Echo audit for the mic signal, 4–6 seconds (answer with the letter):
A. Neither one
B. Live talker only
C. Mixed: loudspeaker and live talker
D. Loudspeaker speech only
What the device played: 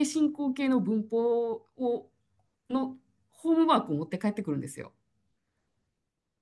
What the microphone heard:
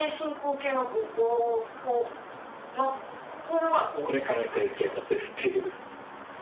C